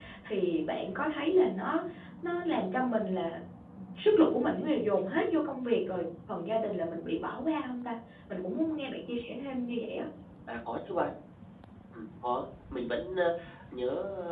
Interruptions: none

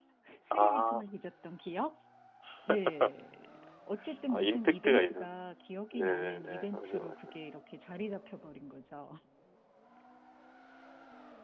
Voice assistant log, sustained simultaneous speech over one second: present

